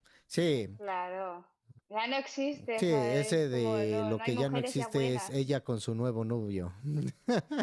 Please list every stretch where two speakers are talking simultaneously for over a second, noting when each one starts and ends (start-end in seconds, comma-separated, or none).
2.8-5.3